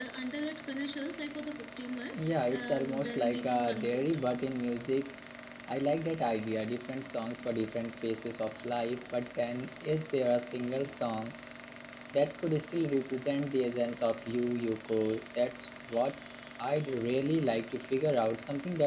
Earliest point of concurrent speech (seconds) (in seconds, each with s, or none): 2.1 s